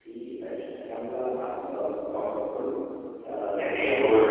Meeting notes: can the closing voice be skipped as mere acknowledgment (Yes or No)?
No